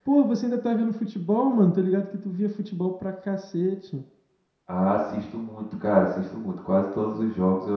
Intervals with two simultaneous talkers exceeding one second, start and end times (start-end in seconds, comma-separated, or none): none